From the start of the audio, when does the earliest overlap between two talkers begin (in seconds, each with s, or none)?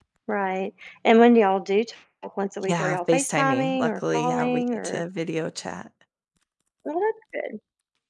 2.6 s